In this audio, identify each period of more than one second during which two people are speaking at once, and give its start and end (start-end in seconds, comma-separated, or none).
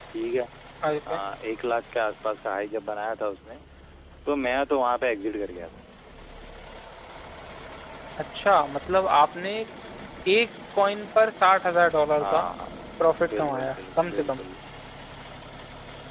13.1-14.4